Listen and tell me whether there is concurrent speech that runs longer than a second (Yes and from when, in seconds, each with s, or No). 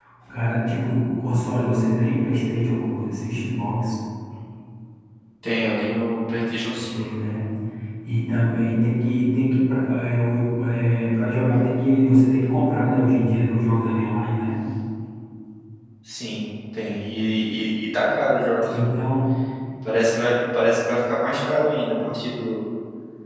No